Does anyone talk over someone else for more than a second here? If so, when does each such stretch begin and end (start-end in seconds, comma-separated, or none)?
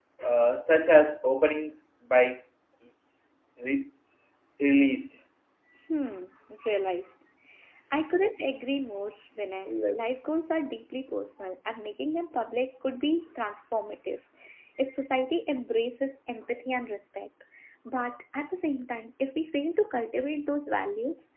none